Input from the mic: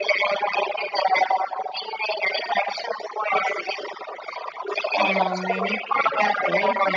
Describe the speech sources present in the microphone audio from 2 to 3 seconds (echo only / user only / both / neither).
echo only